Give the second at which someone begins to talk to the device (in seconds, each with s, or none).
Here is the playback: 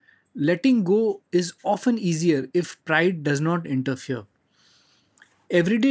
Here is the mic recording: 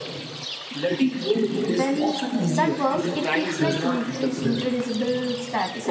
1.7 s